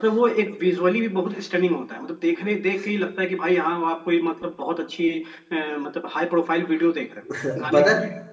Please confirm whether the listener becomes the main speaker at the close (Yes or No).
Yes